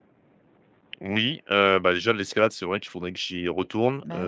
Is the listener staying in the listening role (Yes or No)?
Yes